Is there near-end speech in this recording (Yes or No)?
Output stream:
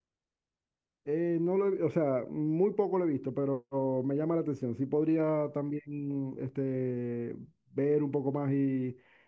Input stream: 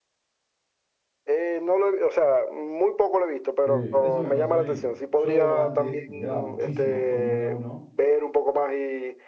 Yes